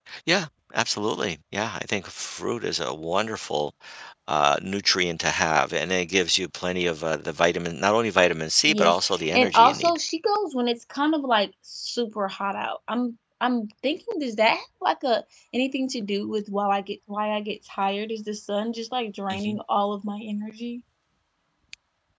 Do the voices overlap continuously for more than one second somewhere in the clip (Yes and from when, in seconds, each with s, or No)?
Yes, from 8.7 s